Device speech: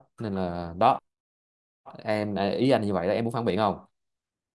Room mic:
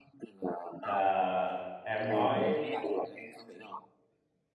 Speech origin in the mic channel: both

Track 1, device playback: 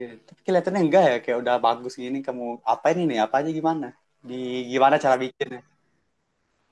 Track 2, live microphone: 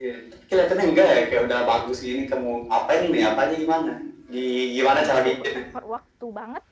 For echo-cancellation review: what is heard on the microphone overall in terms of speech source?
both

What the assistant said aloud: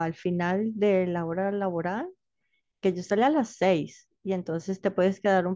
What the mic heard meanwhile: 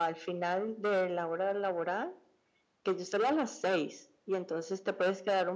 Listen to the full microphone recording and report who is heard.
echo only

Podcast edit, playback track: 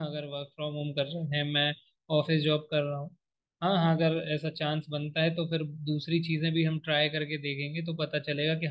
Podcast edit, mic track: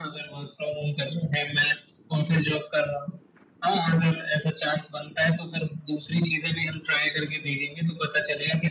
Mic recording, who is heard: echo only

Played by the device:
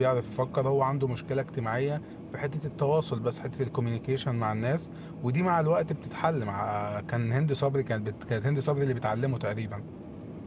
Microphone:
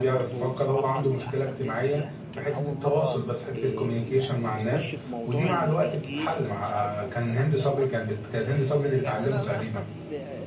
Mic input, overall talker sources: both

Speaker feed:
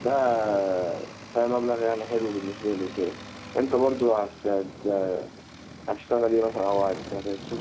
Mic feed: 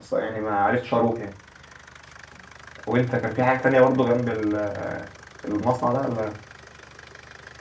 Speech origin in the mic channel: user only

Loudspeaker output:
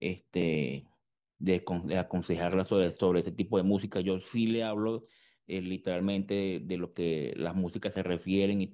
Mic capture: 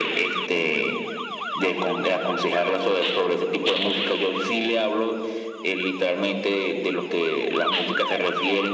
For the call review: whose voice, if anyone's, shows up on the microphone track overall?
echo only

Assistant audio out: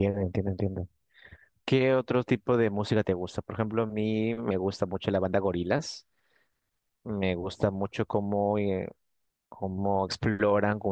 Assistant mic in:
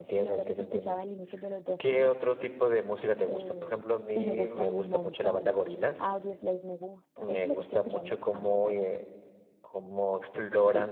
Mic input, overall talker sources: both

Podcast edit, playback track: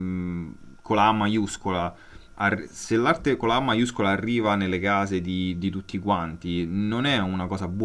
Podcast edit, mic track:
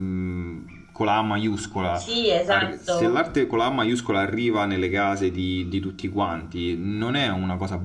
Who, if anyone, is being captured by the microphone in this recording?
both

